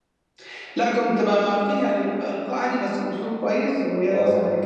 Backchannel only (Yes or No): Yes